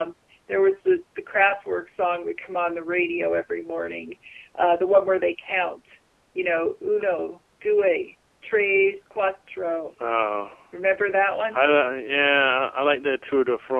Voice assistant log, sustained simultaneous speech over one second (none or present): none